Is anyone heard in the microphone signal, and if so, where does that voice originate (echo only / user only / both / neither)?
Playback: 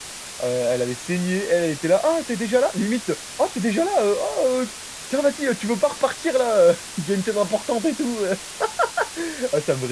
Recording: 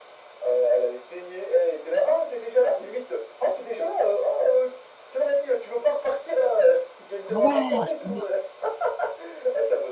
both